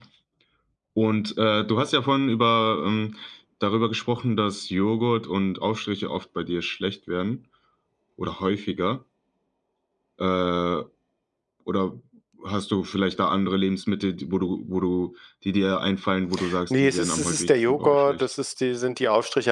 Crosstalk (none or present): present